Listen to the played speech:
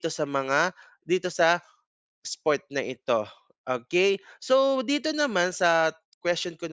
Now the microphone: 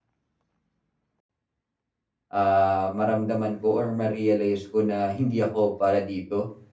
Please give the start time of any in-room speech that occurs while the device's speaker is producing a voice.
2.3 s

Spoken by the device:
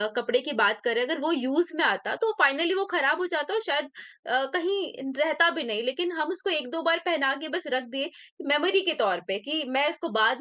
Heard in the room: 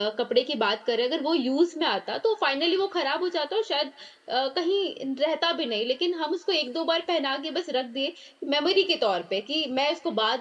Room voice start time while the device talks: none

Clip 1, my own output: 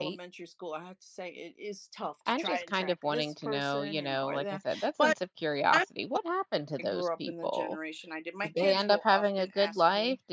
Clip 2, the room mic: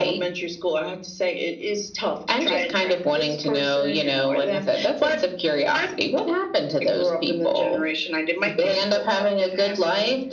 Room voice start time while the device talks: none

